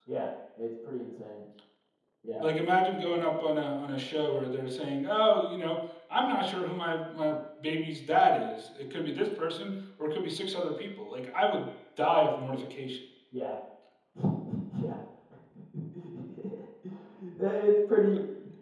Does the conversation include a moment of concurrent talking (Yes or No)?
No